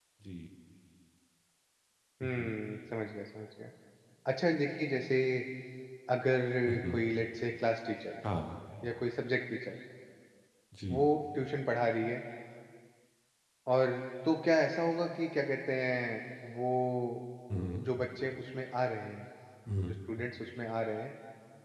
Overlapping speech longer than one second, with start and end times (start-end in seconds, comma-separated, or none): none